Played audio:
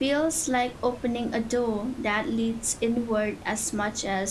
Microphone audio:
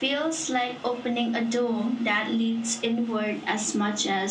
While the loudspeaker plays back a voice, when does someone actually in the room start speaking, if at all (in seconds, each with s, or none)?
none